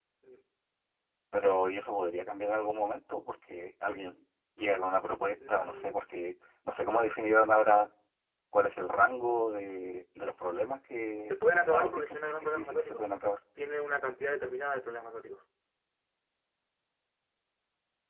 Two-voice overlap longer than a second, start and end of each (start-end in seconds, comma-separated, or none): 11.3-13.0